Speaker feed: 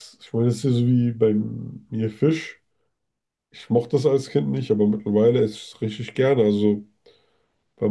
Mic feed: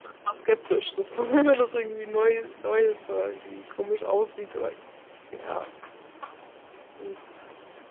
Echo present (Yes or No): No